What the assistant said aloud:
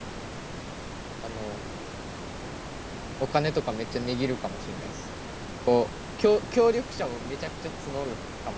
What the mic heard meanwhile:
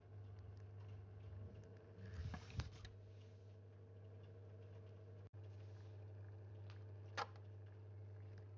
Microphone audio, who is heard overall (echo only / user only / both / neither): neither